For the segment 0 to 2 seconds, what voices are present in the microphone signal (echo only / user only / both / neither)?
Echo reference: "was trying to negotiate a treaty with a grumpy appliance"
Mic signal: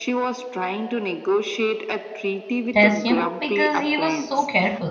echo only